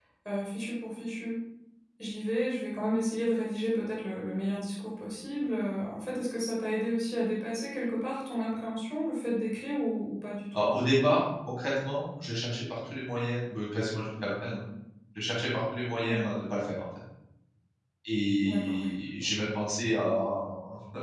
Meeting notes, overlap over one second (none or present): none